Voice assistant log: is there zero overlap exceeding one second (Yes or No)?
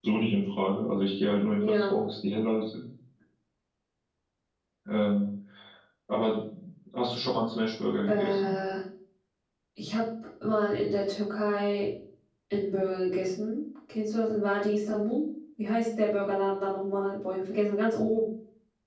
Yes